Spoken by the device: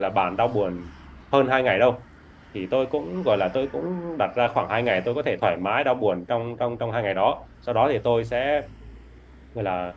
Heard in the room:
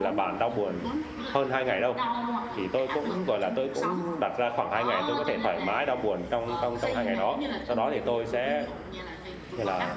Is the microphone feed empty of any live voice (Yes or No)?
No